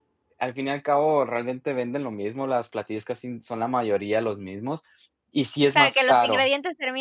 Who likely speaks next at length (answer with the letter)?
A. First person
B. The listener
B